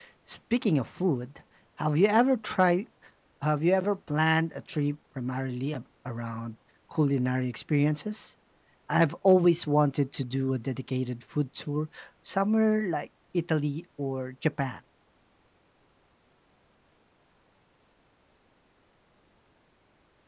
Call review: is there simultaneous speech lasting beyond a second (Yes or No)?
No